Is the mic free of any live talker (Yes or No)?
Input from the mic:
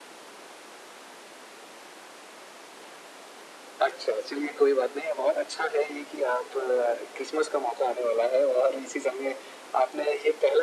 Yes